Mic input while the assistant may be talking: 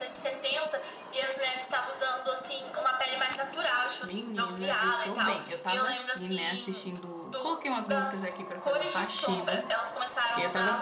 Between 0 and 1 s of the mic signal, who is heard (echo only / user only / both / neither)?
echo only